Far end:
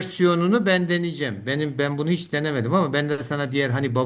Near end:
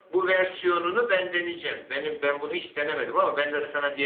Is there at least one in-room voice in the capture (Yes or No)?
No